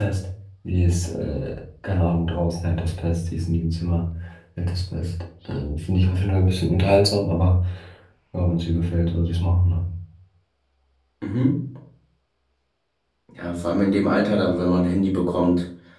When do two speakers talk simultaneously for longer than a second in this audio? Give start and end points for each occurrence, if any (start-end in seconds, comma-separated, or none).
none